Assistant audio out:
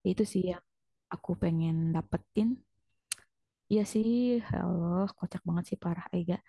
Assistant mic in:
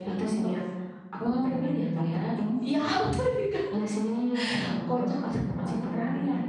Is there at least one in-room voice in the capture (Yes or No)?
Yes